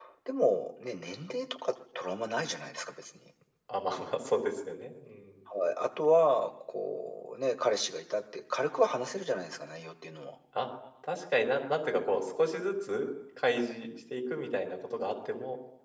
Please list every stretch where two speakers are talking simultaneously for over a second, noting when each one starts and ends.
none

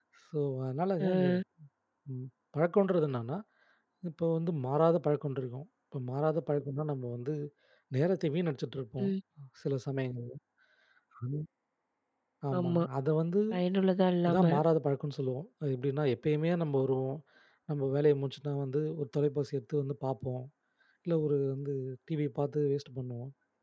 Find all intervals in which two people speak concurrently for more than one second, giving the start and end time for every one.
none

